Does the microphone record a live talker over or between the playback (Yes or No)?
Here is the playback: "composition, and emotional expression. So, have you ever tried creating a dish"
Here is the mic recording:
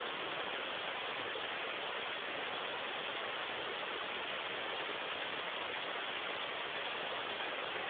No